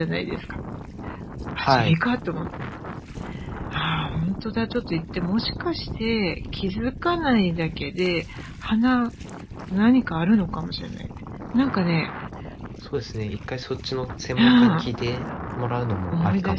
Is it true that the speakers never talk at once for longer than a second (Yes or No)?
Yes